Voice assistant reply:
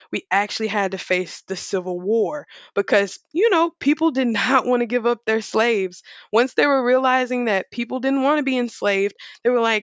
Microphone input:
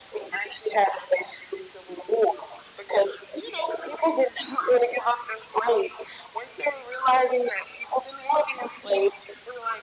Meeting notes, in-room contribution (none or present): none